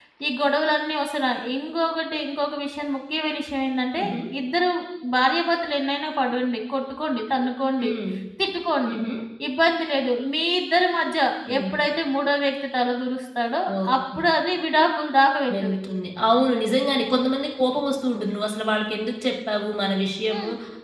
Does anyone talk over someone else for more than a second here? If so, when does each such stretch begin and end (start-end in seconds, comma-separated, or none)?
none